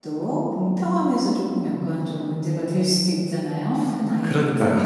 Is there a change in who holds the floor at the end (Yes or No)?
Yes